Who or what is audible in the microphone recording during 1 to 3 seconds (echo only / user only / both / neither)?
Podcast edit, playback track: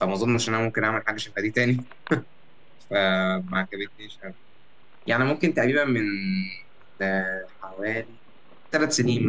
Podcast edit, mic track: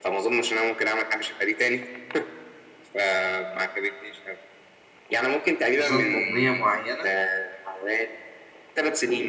echo only